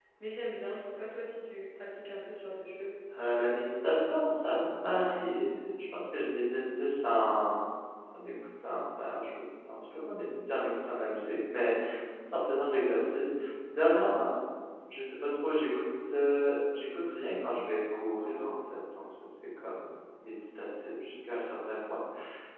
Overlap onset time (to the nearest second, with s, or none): none